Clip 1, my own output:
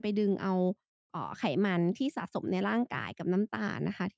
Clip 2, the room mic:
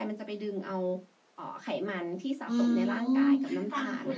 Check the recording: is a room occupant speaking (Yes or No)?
Yes